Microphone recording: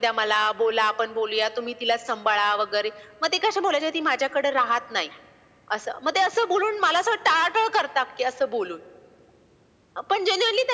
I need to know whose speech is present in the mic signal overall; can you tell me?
echo only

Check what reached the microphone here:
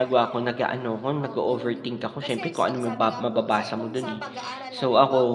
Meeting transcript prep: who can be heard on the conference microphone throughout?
both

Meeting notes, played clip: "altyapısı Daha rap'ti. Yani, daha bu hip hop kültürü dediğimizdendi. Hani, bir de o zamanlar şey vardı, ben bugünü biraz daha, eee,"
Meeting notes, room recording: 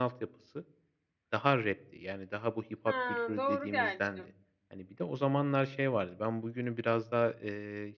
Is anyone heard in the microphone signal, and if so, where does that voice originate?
both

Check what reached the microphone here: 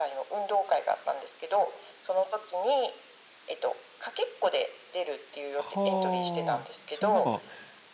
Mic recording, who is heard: both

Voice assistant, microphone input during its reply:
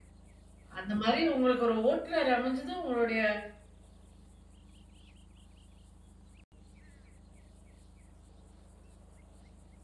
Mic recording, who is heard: user only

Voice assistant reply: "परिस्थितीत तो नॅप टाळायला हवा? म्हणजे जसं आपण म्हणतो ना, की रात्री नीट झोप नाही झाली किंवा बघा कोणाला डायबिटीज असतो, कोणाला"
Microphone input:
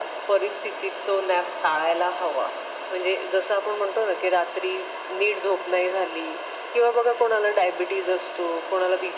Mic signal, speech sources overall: echo only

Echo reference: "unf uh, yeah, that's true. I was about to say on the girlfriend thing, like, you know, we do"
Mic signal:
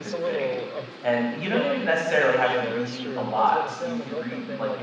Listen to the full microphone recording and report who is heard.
both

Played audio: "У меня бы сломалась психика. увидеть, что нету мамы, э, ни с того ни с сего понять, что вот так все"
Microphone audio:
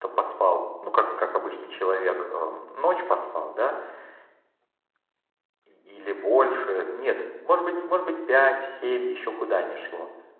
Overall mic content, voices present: user only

